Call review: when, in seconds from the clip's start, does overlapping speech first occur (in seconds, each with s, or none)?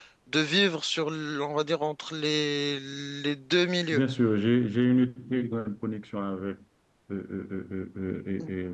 none